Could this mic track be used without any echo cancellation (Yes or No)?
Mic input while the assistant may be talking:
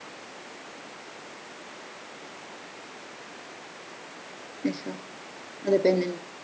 Yes